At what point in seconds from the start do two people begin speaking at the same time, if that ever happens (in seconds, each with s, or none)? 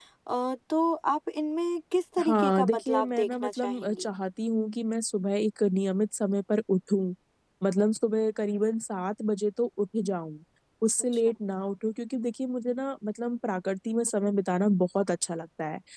2.2 s